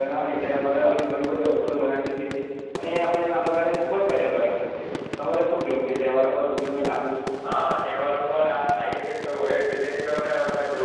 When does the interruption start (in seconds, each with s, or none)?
none